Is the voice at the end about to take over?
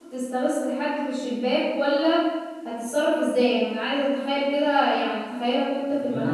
Yes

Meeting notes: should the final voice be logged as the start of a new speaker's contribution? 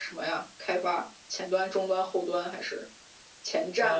Yes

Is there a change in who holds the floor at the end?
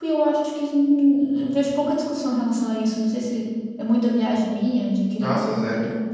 No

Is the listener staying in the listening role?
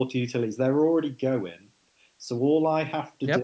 No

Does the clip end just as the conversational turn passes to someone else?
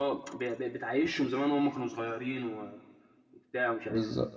No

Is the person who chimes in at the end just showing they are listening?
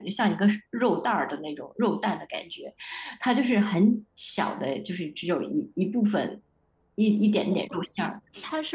No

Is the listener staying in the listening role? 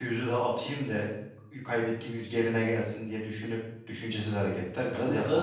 No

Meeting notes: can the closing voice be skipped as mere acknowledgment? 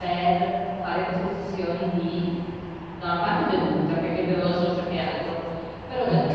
Yes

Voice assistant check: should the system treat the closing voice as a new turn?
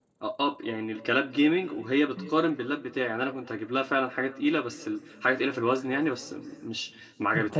Yes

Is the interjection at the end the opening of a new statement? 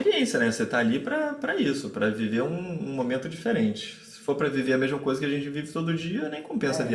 Yes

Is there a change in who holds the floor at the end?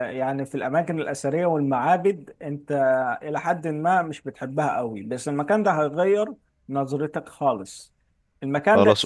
No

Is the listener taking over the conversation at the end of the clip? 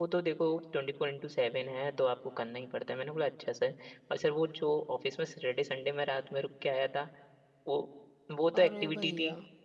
No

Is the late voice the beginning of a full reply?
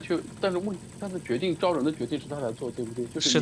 Yes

